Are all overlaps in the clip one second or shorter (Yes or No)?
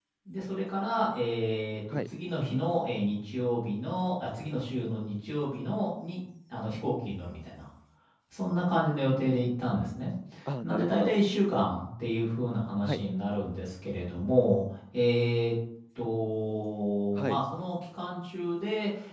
Yes